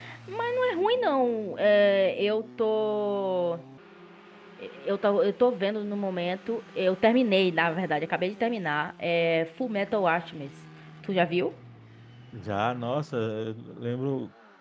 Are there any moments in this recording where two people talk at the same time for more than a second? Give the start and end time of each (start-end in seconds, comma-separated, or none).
none